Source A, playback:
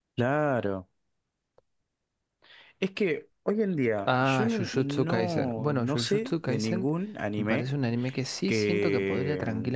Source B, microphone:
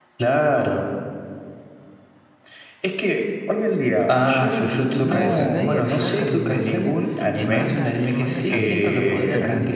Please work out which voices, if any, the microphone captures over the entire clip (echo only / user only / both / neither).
both